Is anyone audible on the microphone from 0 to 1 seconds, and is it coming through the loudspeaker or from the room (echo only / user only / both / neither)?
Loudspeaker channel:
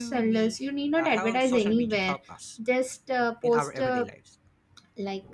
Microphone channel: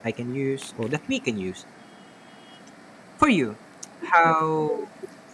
user only